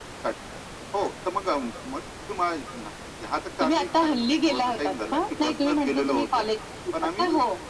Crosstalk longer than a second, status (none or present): present